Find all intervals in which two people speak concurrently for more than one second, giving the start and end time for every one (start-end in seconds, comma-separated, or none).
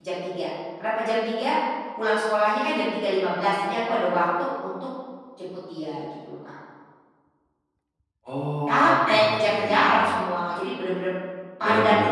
8.7-10.1